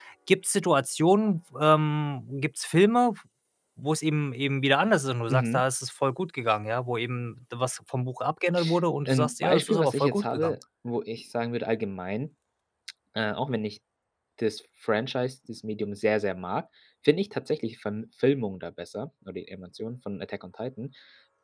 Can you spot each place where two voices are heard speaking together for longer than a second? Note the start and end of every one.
9.1-10.6

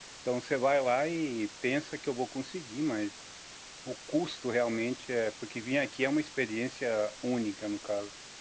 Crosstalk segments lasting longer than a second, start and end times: none

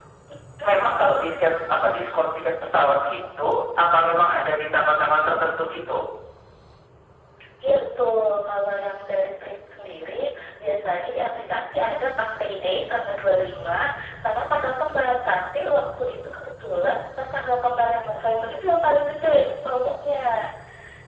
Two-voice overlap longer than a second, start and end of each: none

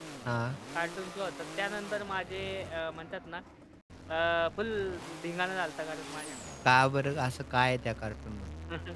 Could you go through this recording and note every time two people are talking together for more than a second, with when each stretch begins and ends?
none

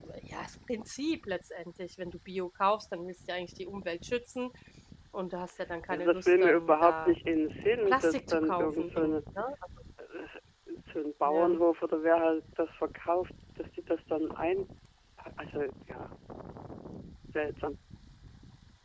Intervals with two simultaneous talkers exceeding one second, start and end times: 5.9-7.1, 7.9-9.1

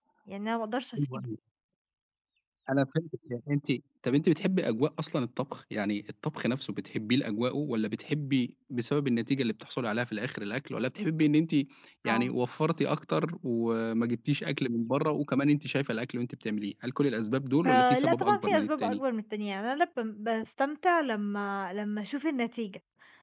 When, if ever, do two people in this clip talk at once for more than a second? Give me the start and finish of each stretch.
17.7-19.0

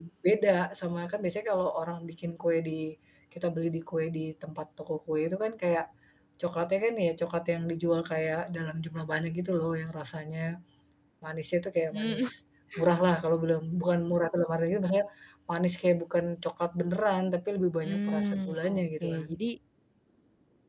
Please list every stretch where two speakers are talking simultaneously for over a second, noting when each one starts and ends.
17.8-19.3

